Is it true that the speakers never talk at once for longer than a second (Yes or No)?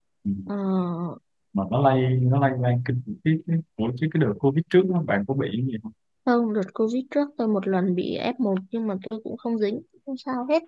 Yes